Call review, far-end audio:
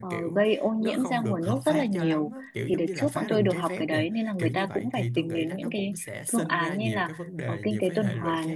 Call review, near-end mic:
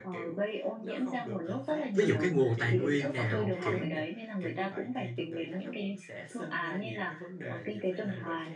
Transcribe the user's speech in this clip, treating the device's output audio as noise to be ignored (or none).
ví dụ cái nguồn tài nguyên nào kiểu